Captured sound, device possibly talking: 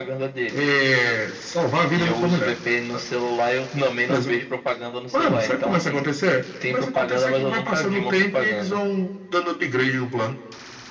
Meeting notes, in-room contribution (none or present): none